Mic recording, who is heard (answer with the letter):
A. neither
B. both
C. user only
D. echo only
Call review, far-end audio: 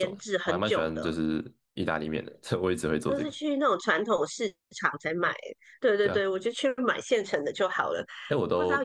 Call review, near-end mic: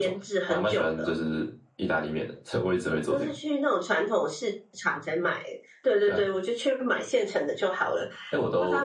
D